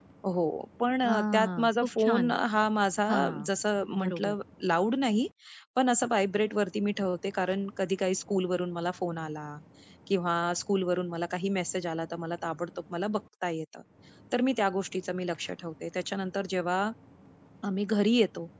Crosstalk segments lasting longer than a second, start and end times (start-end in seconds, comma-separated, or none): 1.0-2.3